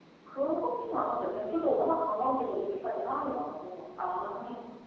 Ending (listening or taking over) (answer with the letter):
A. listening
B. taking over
B